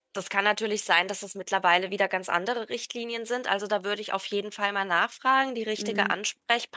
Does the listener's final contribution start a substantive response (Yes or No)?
No